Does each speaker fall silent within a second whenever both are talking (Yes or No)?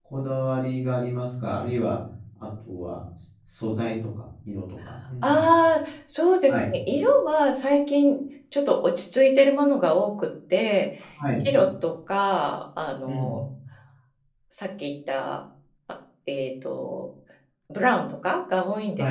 Yes